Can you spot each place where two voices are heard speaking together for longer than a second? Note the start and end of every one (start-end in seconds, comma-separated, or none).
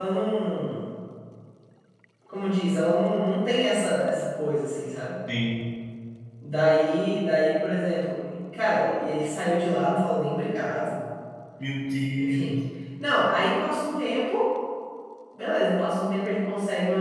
none